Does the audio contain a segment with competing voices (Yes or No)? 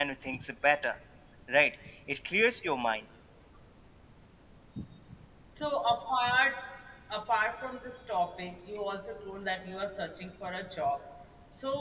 No